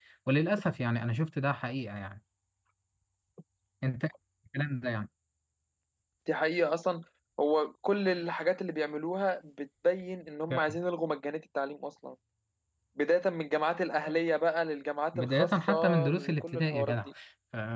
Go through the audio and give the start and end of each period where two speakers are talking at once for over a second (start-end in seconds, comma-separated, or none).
15.1-16.9